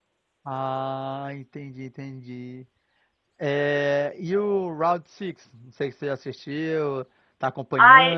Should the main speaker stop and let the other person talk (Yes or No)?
Yes